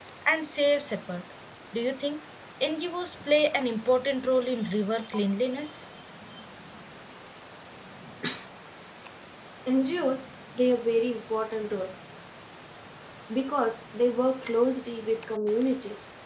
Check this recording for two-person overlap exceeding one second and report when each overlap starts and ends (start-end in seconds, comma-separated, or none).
none